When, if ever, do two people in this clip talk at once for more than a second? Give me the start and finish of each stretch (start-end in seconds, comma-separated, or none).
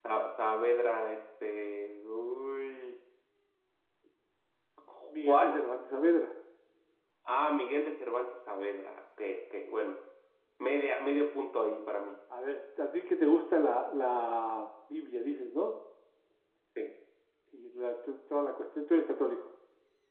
none